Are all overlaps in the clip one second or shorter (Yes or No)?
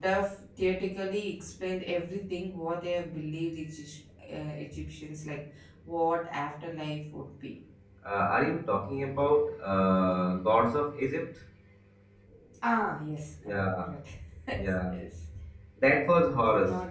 Yes